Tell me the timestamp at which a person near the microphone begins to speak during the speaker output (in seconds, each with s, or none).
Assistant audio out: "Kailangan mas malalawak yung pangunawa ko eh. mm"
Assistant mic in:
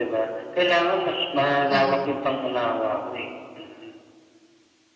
1.7 s